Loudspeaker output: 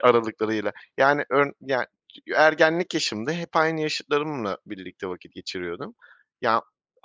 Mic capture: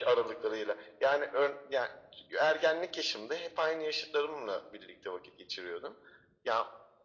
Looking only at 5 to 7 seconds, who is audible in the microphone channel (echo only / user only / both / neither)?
echo only